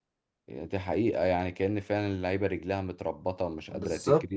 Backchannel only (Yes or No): No